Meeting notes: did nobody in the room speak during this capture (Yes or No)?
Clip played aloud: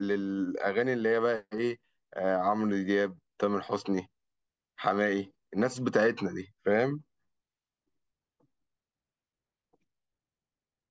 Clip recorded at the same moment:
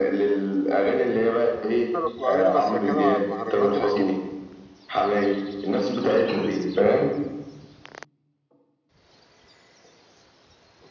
No